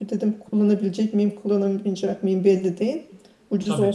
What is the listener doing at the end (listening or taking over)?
listening